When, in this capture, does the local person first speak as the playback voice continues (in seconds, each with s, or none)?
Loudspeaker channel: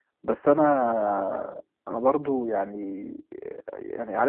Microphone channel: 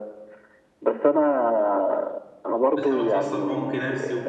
2.8 s